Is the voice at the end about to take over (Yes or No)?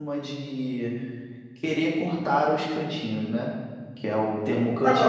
Yes